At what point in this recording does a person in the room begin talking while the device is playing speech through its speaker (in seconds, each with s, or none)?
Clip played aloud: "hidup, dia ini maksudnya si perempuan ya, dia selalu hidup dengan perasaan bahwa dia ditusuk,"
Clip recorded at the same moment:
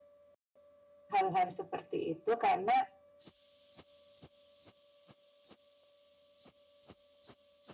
1.1 s